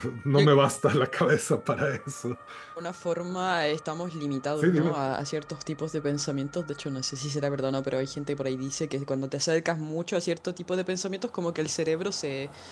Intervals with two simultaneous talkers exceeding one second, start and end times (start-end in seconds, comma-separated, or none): none